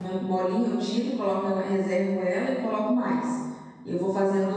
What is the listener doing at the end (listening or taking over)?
listening